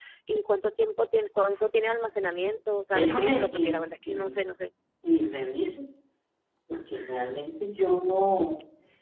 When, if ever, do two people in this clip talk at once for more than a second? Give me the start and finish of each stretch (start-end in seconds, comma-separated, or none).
2.9-4.3